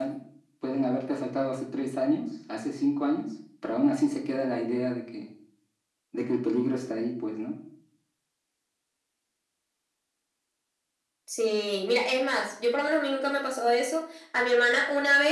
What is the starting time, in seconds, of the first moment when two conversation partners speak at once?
none

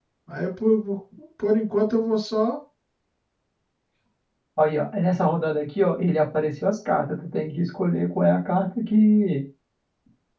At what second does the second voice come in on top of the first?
none

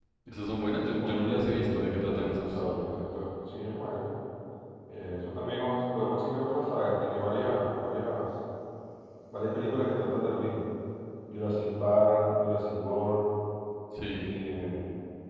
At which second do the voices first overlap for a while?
1.0 s

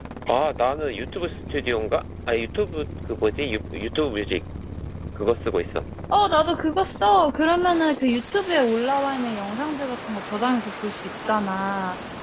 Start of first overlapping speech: none

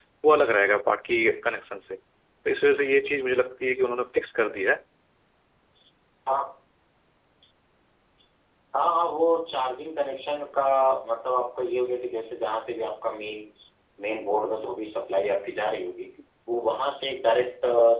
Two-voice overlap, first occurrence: none

